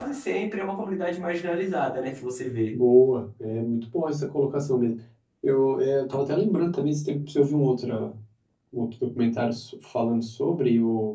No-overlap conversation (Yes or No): Yes